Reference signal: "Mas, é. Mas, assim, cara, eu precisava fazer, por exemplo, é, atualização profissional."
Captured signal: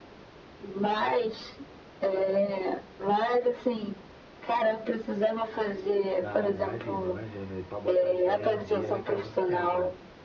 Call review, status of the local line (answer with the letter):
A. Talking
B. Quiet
A